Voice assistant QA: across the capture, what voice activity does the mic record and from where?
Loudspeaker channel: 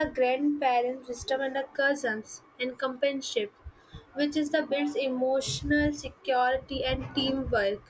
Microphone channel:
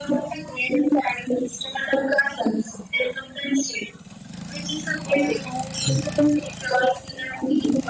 echo only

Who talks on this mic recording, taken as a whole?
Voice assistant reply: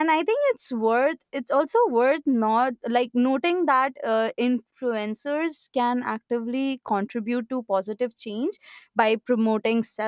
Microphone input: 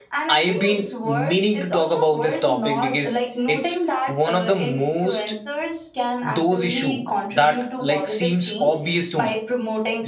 both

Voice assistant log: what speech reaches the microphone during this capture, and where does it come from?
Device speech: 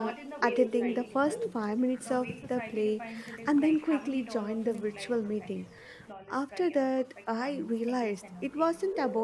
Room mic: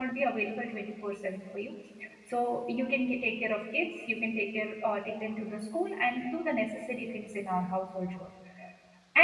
user only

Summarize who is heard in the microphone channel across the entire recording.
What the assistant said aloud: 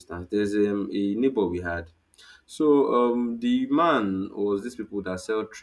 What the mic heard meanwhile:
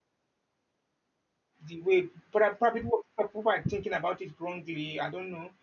user only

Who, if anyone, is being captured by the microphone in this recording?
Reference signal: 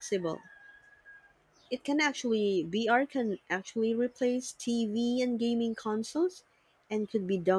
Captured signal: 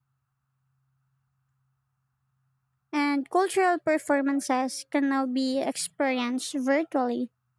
user only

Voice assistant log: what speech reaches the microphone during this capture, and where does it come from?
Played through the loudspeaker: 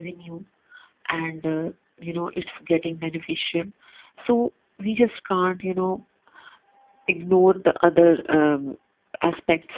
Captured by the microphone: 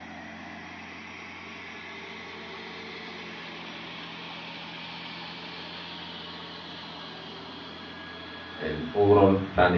user only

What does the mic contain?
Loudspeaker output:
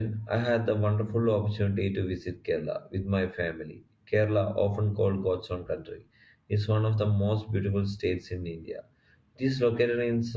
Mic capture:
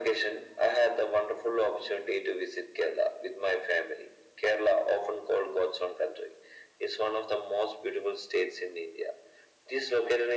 echo only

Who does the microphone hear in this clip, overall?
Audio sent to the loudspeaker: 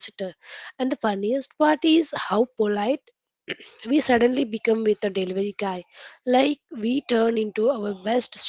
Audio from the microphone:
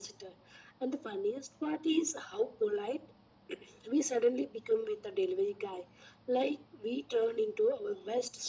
echo only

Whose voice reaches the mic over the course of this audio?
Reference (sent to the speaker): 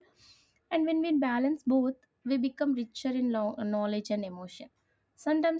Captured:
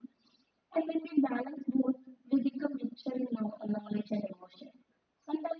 echo only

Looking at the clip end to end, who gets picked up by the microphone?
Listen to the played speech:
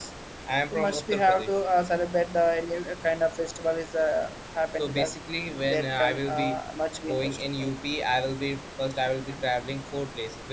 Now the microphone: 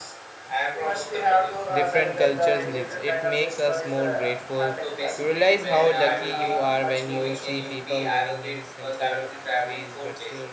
both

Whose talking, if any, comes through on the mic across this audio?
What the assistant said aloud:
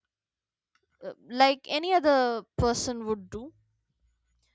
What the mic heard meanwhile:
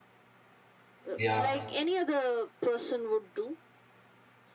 both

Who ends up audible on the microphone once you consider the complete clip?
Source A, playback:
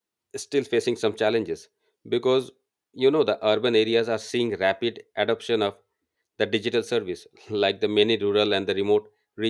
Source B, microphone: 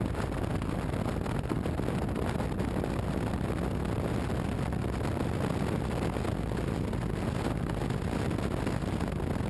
neither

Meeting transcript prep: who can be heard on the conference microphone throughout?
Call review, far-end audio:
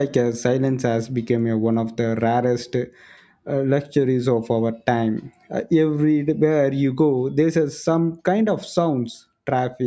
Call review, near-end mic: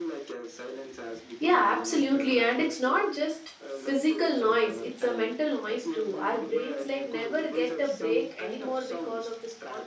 both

